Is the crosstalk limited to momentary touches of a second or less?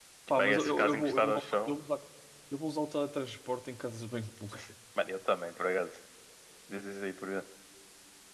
No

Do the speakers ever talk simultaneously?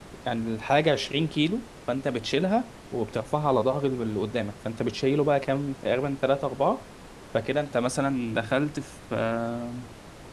No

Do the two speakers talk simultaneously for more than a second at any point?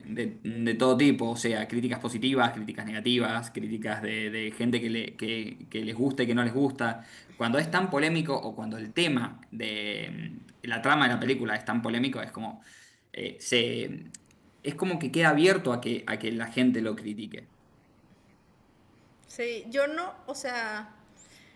No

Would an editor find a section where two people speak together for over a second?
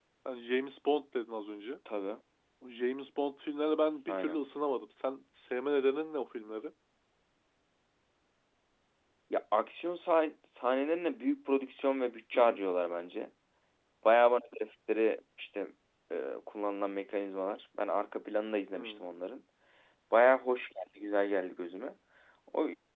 No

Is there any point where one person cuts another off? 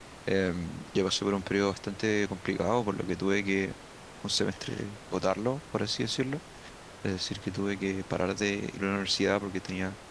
No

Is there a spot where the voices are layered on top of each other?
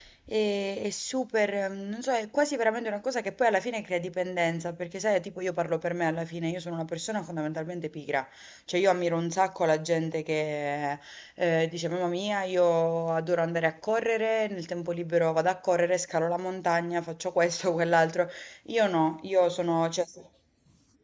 No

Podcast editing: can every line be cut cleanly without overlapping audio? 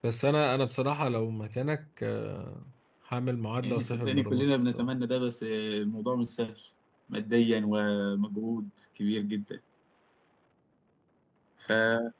No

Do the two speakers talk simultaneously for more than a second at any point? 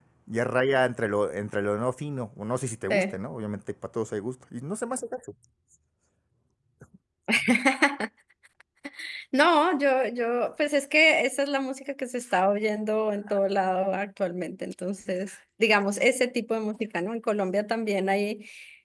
No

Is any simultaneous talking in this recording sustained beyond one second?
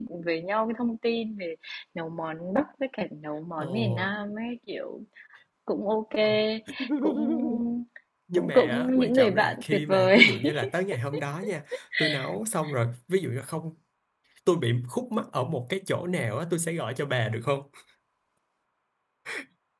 Yes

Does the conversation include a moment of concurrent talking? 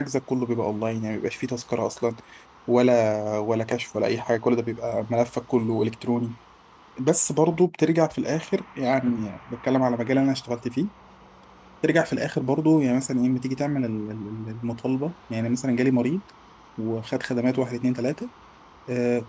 No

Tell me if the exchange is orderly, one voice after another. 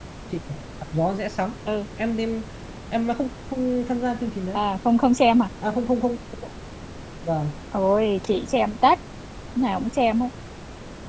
Yes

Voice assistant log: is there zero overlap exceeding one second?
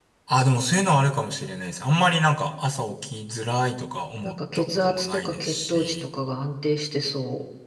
No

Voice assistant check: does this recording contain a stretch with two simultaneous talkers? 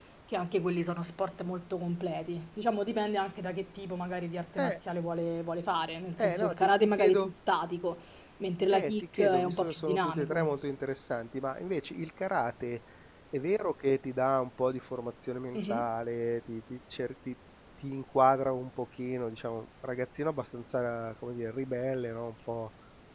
Yes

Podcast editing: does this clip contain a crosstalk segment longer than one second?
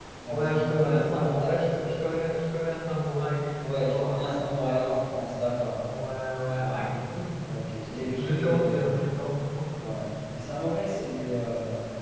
Yes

